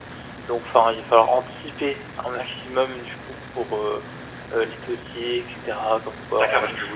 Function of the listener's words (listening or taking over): taking over